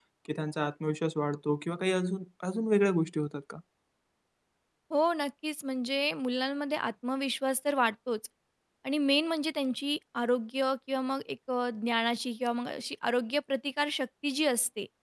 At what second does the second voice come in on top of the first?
none

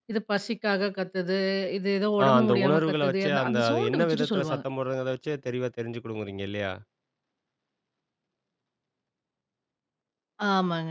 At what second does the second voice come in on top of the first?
2.2 s

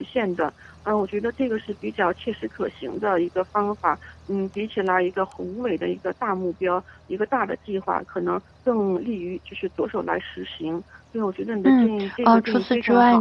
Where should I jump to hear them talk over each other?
11.7 s

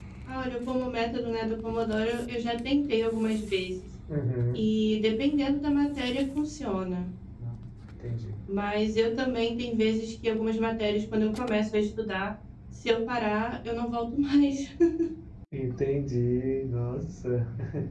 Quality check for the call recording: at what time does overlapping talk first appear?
none

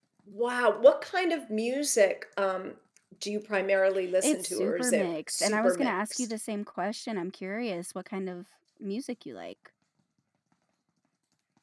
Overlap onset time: 4.2 s

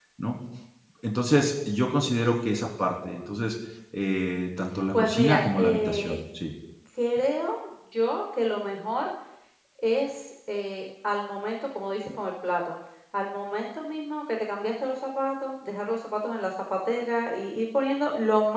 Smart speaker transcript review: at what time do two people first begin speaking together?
4.9 s

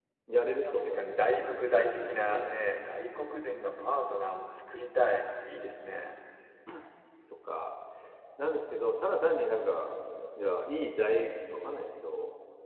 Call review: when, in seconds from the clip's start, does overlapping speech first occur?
0.7 s

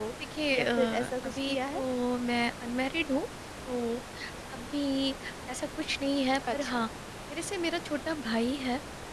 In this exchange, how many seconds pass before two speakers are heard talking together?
0.5 s

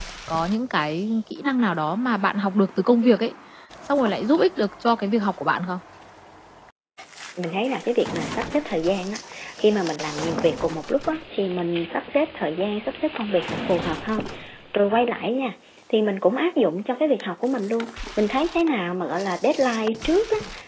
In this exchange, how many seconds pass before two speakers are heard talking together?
none

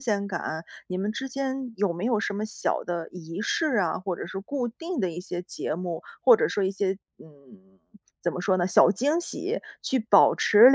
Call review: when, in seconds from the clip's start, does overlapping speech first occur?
none

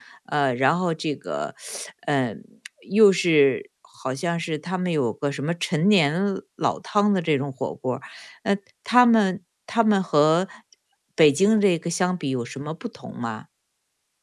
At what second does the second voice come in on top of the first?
none

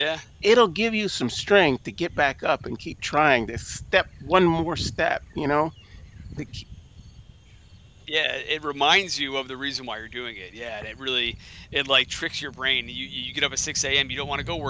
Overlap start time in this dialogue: none

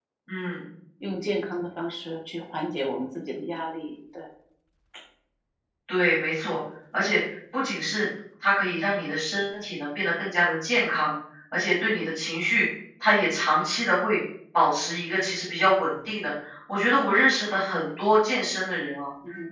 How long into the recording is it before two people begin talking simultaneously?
none

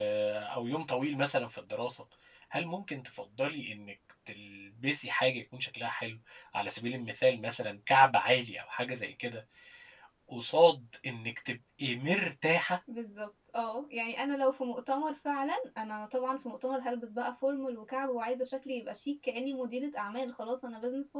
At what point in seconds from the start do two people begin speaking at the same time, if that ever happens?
none

